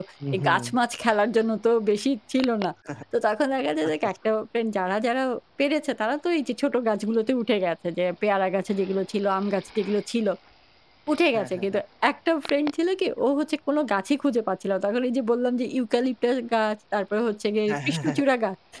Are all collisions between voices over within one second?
Yes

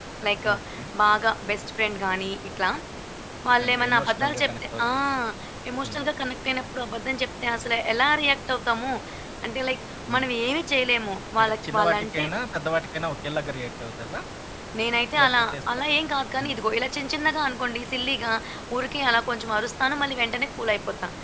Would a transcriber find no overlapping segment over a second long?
No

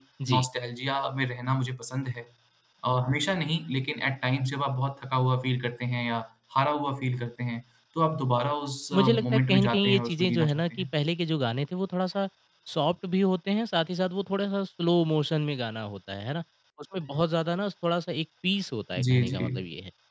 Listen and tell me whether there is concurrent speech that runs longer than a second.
Yes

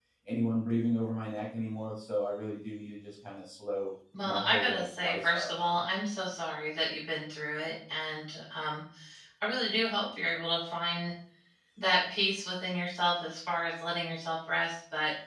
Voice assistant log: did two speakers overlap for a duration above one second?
Yes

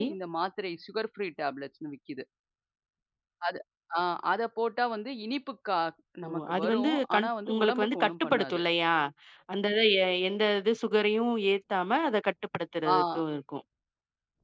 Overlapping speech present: Yes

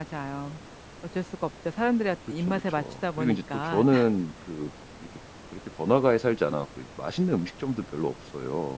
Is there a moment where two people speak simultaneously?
Yes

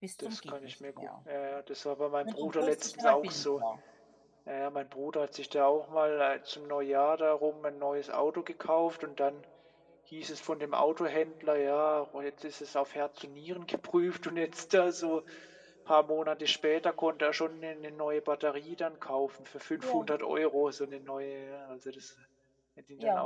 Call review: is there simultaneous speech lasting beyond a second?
Yes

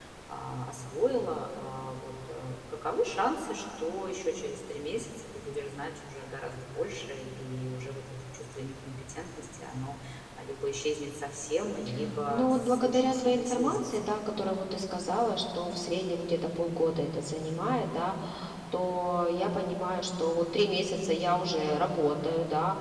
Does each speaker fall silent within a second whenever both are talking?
No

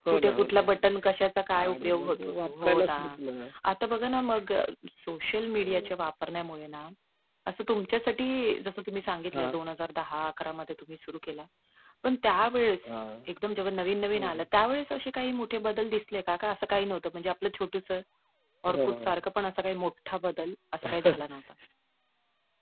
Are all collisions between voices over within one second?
No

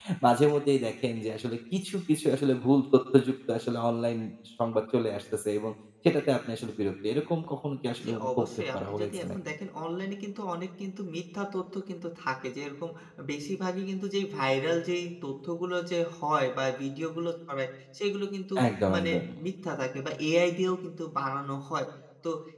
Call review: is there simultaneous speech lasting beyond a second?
Yes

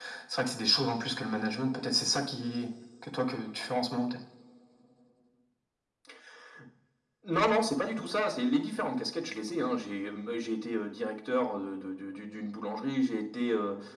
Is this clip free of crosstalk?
Yes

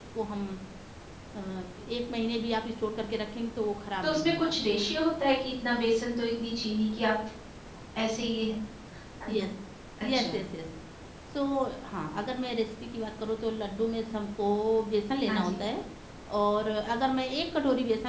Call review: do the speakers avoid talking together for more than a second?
Yes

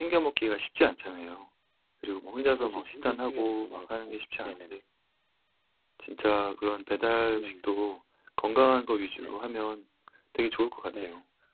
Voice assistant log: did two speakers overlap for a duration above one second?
Yes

